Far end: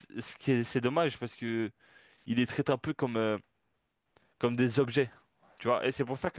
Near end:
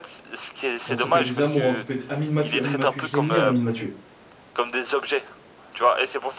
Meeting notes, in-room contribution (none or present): present